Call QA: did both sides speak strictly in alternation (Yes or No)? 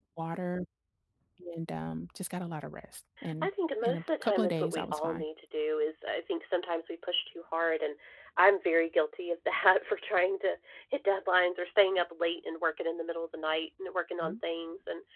No